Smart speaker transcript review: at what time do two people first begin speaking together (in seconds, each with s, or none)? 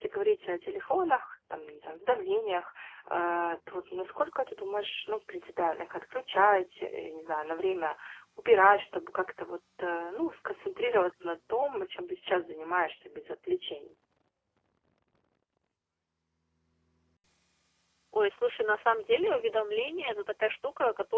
none